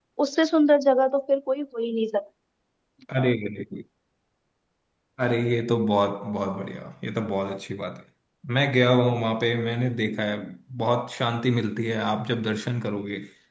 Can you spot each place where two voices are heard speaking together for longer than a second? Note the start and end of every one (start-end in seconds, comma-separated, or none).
none